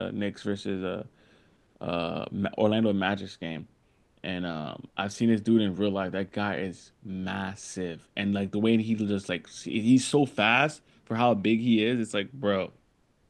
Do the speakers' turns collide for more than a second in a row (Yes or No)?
No